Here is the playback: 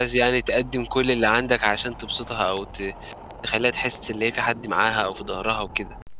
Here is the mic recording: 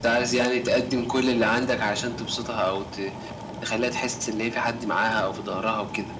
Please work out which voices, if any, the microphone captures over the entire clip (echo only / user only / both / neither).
echo only